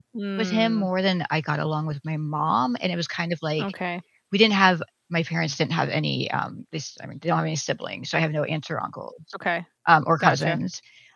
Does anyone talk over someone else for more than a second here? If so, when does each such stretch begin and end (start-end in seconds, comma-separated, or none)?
none